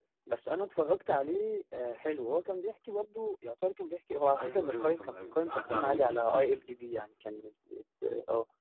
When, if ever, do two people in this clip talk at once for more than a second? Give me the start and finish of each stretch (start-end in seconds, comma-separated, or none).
4.4-6.5